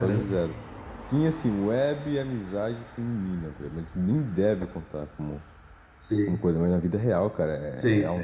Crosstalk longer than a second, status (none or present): none